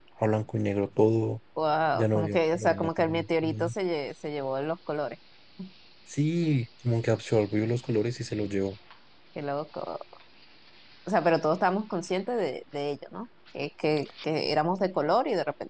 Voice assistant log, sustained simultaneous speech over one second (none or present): present